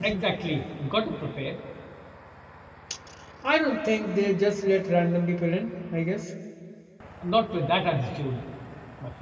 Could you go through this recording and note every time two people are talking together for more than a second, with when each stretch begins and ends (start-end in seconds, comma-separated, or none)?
none